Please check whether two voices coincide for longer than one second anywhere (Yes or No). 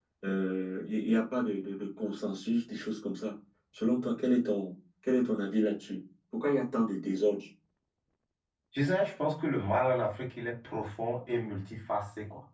No